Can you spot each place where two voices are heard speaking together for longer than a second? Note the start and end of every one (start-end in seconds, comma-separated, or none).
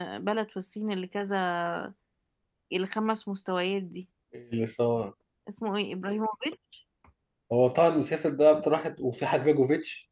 none